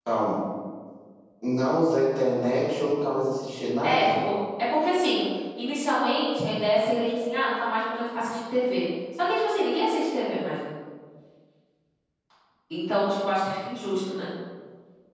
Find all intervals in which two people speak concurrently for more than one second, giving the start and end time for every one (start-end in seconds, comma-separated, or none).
none